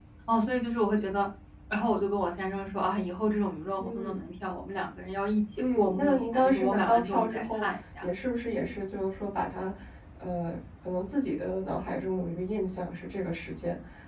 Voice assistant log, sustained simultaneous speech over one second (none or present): present